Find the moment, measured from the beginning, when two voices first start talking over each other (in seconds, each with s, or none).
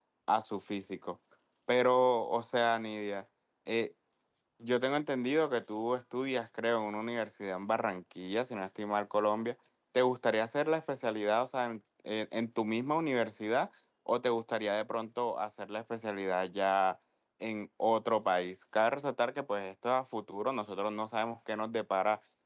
none